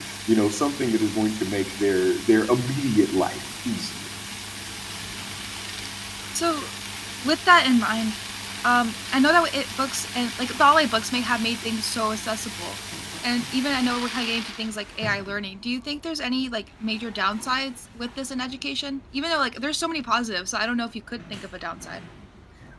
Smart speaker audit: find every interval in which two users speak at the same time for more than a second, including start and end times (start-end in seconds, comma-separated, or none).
none